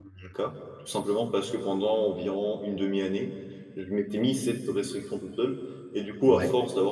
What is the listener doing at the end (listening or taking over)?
listening